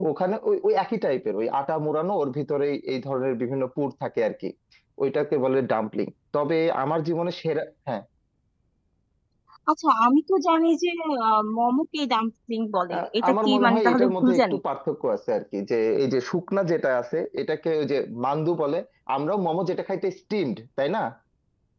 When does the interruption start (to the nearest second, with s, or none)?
13 s